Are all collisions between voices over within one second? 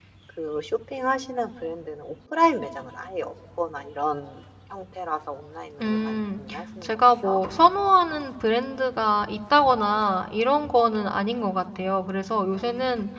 Yes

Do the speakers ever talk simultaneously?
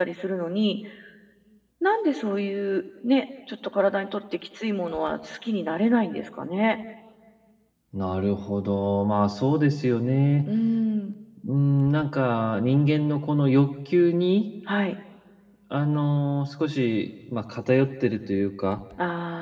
No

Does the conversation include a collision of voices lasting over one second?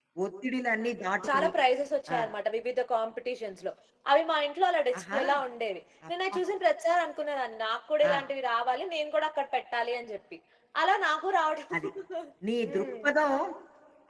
No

